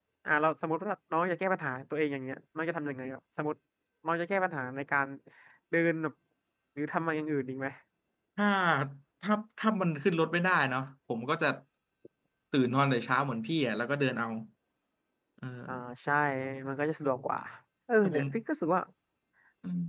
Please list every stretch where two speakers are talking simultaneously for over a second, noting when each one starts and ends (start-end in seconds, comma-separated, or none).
none